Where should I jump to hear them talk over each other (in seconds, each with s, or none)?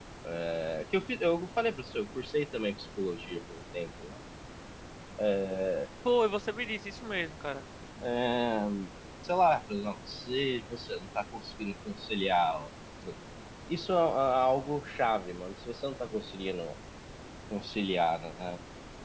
none